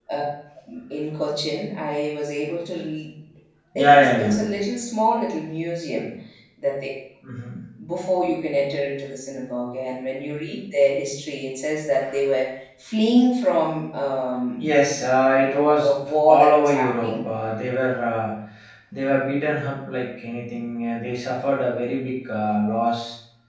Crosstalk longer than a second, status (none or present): present